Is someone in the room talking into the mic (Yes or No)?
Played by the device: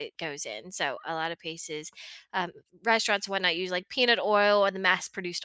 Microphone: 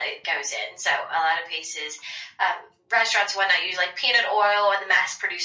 No